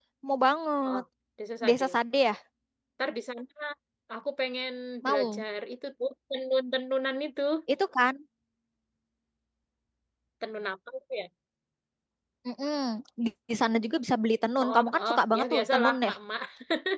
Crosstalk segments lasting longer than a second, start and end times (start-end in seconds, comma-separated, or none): 14.6-16.1